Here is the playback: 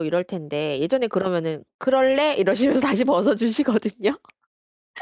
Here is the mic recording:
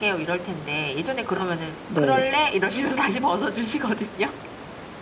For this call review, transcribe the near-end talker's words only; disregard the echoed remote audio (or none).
네.